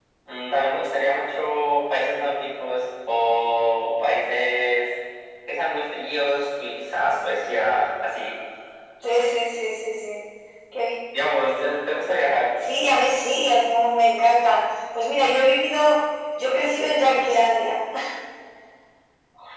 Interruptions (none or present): none